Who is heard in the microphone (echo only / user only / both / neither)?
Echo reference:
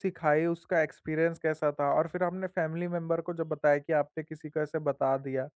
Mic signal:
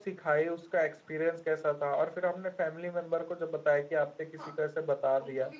both